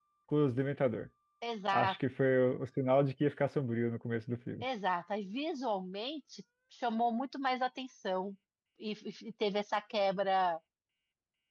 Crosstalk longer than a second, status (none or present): none